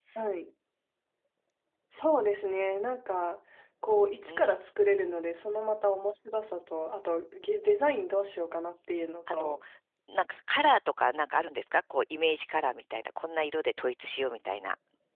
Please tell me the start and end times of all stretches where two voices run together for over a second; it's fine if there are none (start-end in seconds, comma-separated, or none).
none